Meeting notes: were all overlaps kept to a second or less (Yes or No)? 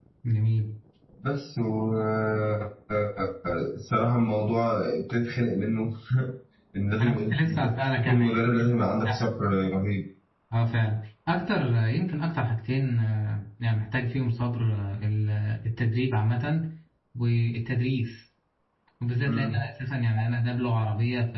No